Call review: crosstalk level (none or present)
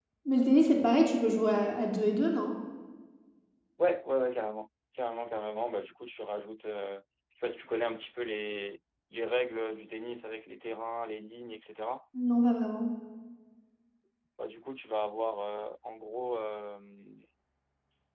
none